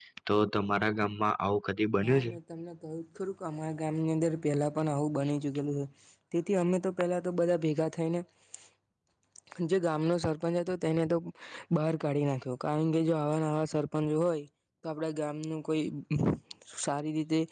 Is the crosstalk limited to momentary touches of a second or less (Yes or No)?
Yes